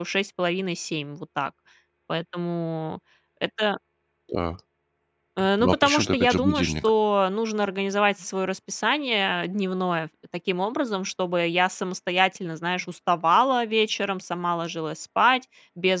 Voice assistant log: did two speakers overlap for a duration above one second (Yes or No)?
Yes